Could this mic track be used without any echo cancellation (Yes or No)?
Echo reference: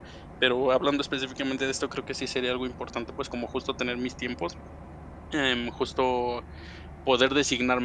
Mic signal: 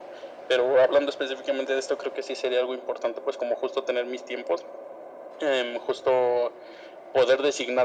No